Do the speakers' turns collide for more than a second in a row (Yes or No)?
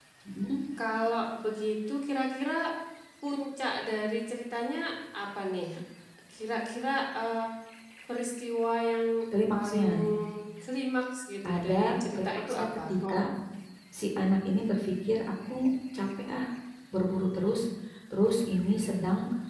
Yes